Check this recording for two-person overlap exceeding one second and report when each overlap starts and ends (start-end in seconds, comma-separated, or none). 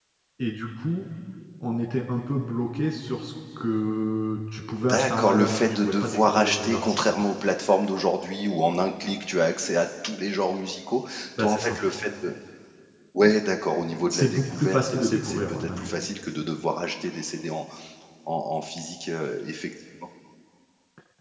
4.9-7.2, 14.1-15.9